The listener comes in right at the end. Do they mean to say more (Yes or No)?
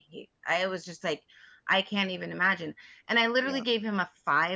No